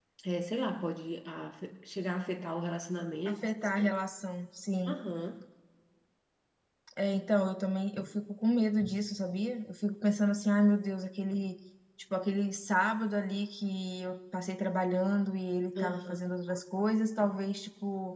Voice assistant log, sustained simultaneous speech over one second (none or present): none